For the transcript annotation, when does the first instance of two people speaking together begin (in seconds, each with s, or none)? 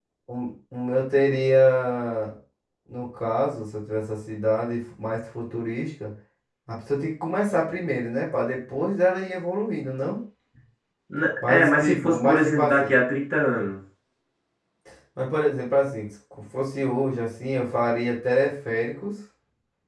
11.5 s